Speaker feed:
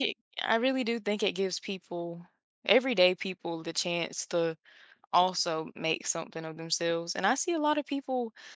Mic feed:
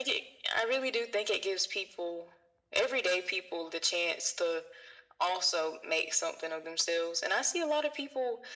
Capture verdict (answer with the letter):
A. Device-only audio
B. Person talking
A